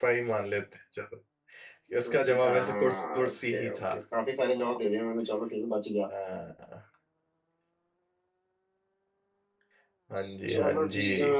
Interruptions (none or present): present